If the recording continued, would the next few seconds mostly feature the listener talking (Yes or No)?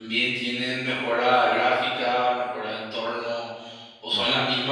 No